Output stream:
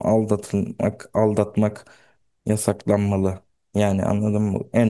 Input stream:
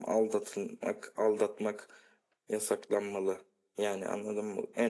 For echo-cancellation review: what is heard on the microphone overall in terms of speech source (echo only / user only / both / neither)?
echo only